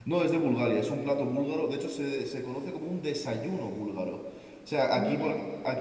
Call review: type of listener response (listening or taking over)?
listening